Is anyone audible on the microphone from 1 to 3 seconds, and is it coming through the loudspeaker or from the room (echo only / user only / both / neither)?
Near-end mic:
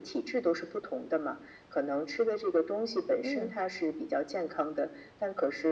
echo only